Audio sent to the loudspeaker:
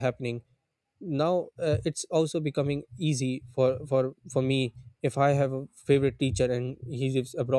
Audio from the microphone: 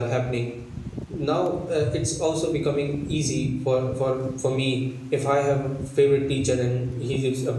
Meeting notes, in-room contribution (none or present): none